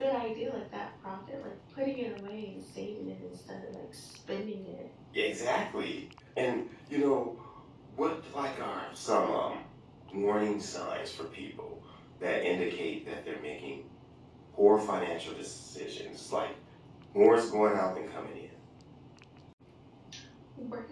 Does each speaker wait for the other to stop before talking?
Yes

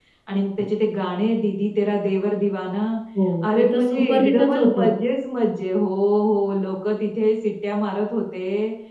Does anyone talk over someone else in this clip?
Yes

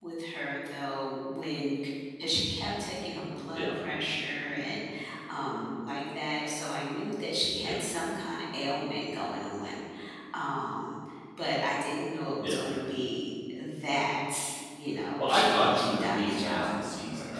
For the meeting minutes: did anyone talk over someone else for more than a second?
Yes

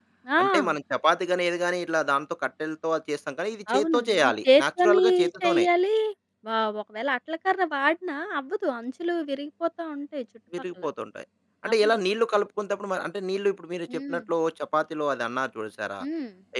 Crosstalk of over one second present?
Yes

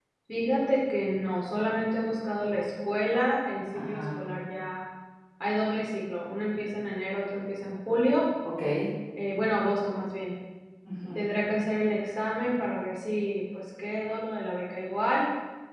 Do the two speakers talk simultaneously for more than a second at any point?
No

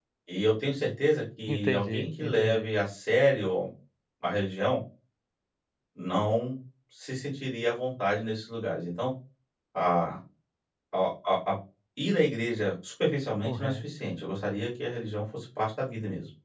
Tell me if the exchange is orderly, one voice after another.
No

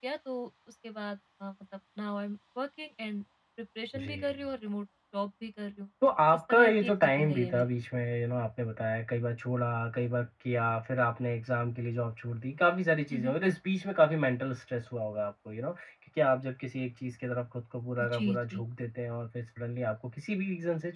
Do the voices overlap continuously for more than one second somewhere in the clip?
Yes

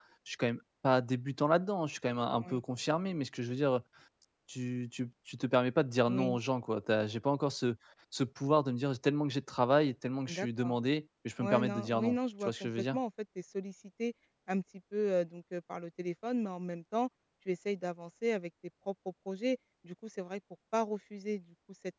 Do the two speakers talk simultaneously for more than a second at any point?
Yes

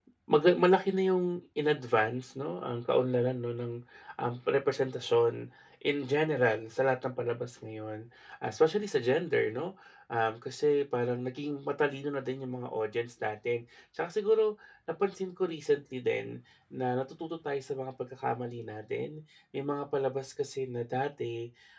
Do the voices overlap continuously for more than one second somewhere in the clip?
No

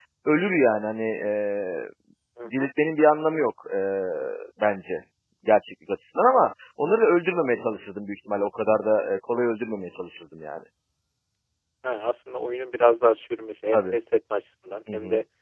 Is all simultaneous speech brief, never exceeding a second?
Yes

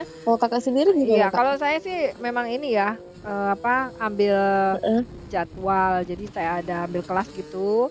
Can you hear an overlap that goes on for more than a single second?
No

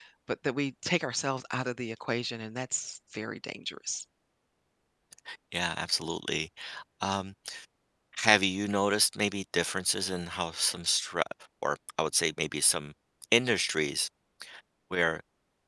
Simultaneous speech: No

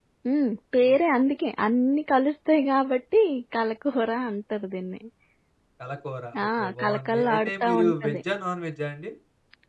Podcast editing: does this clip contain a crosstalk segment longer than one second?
Yes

